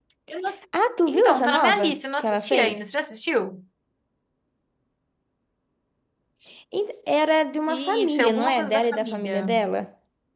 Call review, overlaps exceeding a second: present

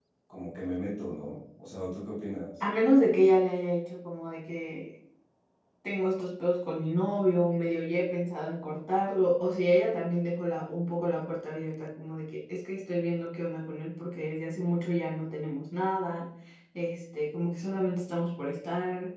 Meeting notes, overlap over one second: none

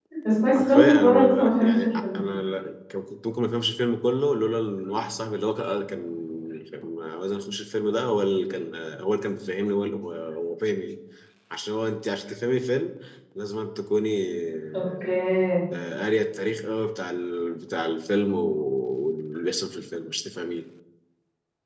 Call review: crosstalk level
present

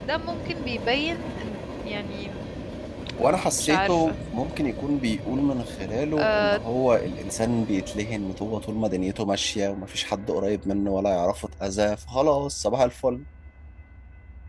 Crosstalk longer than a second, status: none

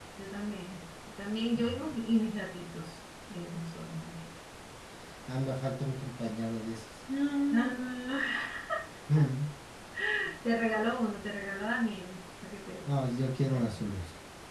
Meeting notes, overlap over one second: none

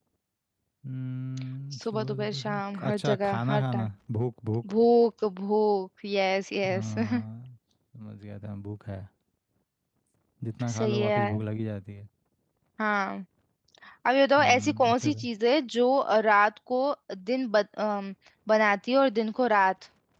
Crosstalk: present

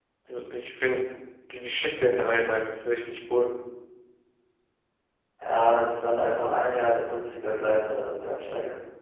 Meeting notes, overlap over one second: none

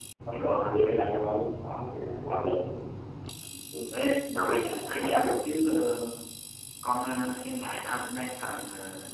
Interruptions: present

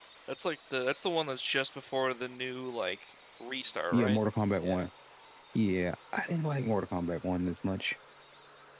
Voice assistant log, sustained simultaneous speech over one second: none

